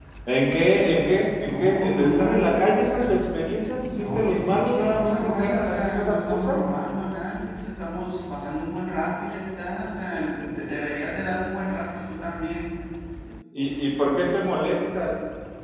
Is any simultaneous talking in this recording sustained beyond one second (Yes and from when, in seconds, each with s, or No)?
Yes, from 1.4 s